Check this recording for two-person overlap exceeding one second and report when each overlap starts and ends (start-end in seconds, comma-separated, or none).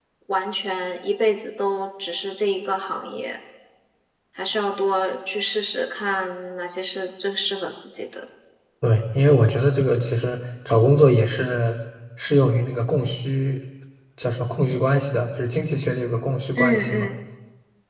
none